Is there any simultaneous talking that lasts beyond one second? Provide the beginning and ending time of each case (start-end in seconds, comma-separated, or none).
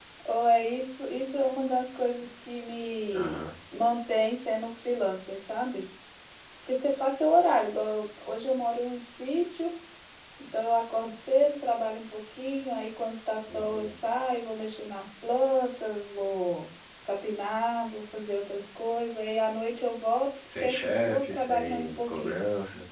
20.5-22.3